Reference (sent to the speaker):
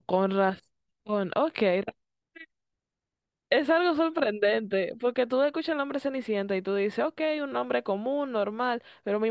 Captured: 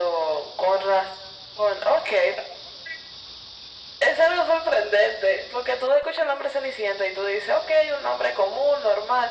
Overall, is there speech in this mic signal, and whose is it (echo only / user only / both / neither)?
echo only